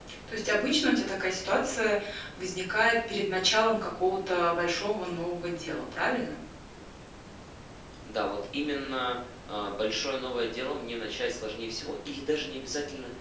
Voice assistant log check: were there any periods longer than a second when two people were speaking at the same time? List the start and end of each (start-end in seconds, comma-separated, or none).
none